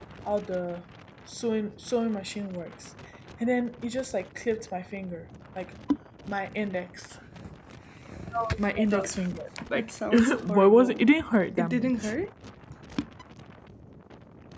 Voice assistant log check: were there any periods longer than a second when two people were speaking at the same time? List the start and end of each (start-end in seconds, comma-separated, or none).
9.7-11.0